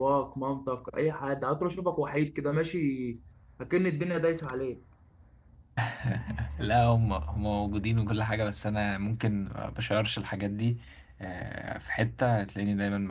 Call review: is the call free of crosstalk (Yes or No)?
Yes